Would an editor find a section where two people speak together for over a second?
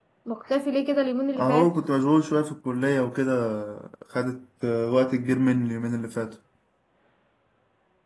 No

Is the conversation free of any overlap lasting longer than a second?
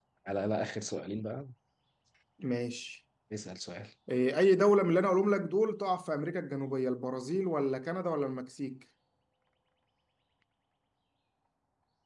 Yes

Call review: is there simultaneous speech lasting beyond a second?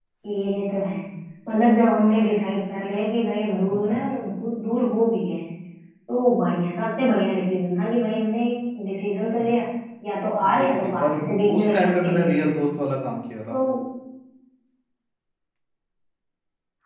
Yes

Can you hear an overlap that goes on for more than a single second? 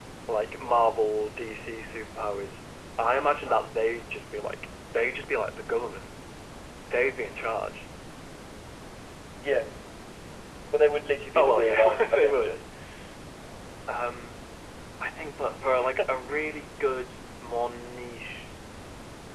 Yes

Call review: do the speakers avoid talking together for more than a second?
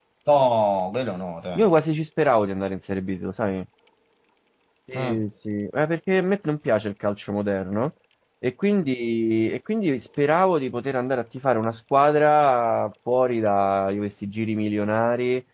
Yes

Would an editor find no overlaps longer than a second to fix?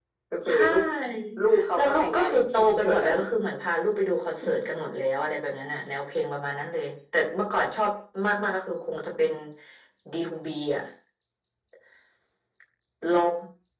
No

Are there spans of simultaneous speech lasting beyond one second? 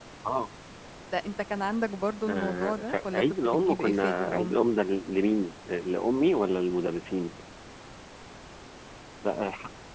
Yes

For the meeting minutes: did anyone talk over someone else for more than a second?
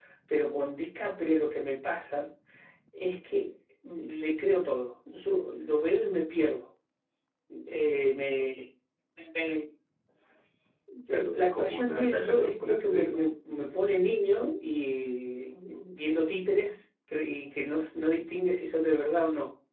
Yes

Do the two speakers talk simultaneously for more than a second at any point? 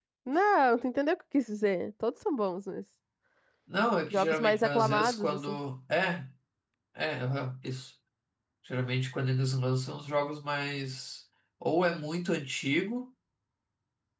Yes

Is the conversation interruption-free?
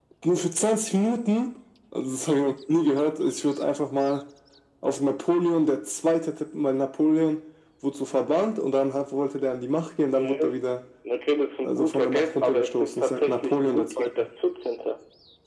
No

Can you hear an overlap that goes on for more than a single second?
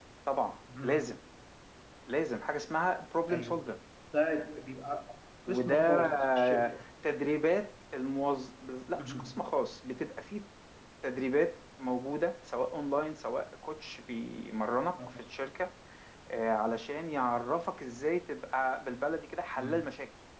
Yes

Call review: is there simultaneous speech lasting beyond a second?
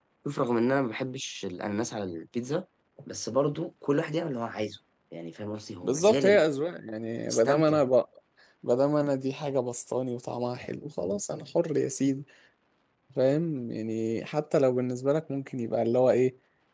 No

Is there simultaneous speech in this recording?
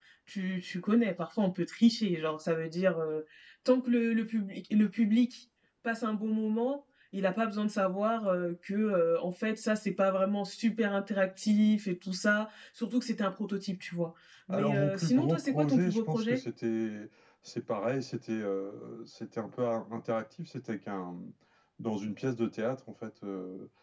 Yes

